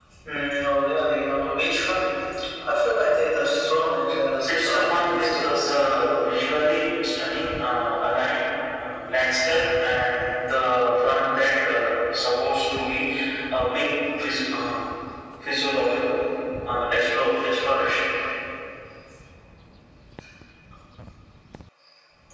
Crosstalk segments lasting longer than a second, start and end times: 4.5-5.7

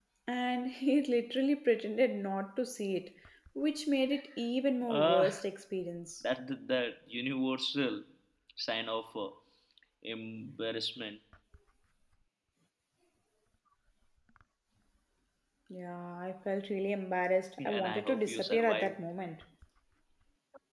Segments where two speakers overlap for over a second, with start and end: 17.6-18.9

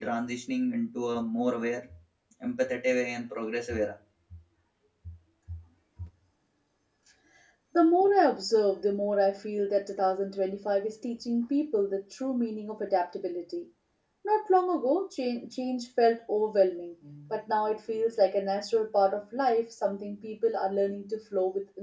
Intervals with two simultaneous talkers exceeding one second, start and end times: none

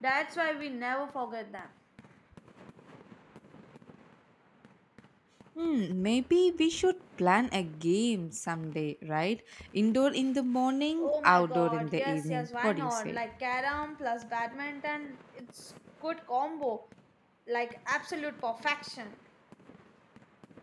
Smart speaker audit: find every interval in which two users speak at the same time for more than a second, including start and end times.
11.0-13.2

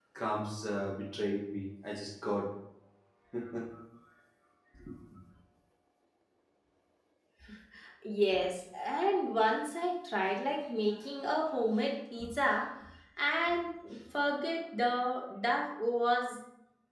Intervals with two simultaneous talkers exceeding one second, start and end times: none

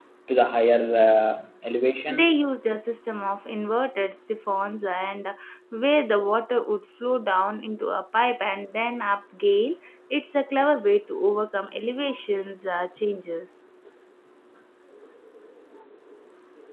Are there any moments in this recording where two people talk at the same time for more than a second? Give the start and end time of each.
none

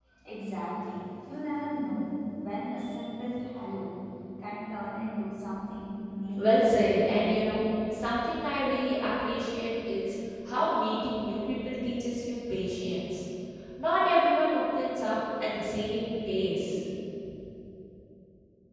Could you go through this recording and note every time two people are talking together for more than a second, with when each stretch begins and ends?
none

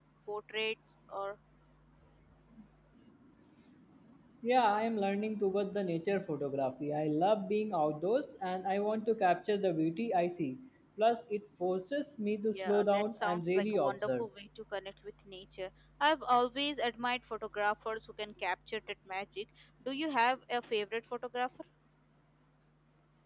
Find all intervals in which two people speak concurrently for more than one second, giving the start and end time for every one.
12.5-14.3

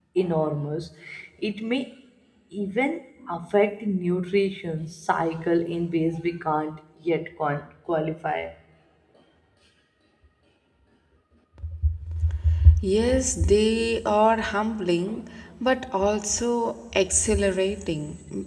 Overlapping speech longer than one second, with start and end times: none

